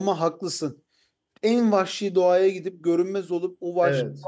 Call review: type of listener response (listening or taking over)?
listening